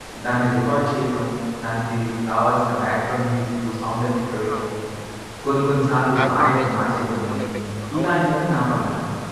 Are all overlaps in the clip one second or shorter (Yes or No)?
No